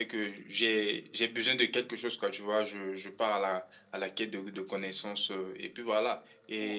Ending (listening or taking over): listening